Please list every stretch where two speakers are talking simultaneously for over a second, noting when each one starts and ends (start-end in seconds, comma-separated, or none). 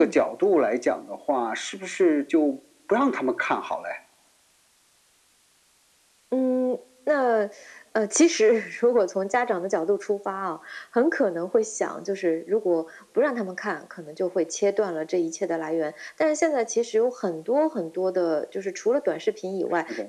none